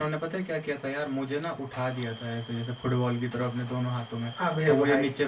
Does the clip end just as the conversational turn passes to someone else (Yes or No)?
No